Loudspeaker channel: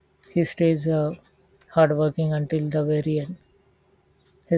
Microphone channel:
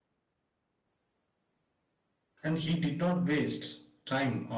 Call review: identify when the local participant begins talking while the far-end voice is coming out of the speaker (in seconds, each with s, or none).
2.4 s